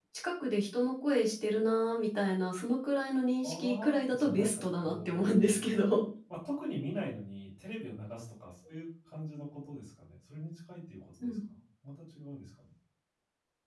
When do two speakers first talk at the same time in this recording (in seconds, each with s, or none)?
3.4 s